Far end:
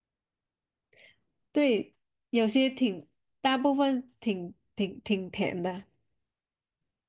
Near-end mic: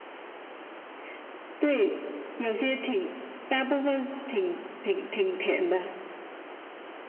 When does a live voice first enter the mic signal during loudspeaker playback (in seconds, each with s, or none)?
none